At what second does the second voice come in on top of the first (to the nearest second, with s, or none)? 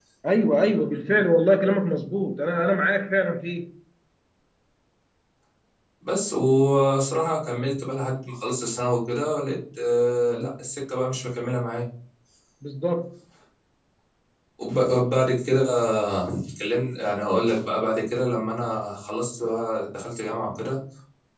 none